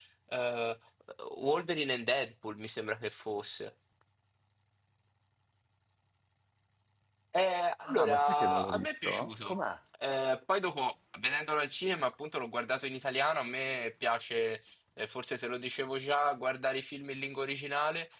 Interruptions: present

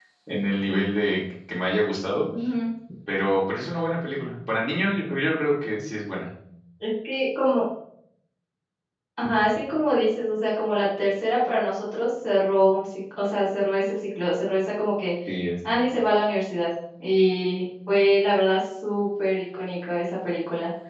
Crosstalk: none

